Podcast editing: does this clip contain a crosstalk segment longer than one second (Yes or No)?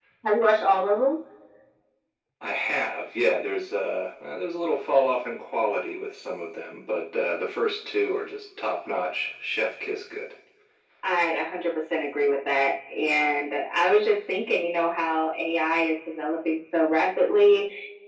No